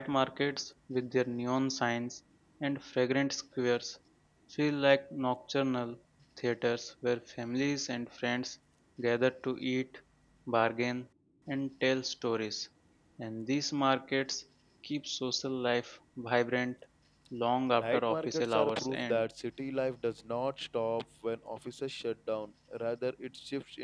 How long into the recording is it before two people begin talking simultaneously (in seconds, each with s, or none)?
17.7 s